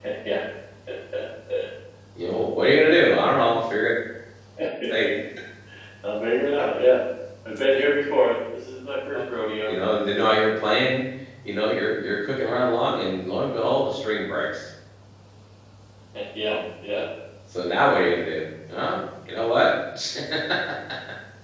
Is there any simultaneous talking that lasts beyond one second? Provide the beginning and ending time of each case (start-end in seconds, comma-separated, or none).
none